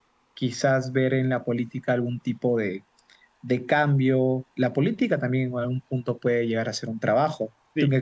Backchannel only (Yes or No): No